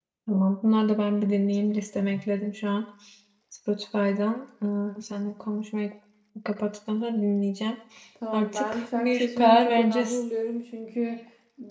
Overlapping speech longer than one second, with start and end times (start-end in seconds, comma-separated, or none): 8.3-10.2